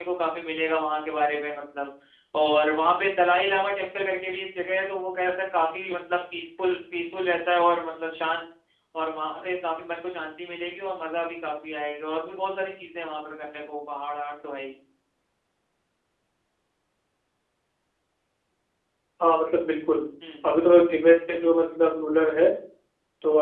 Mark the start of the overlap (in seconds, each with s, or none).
none